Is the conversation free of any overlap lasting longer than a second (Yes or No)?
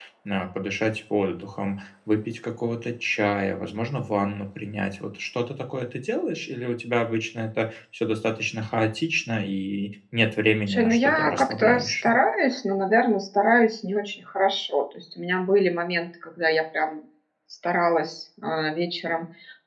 No